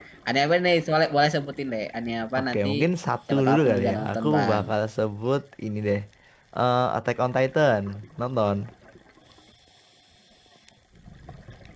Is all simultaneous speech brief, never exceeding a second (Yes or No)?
No